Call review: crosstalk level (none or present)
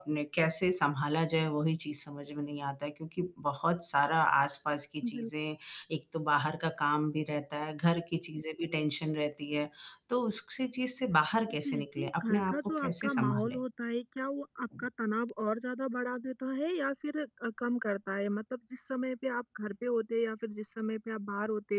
present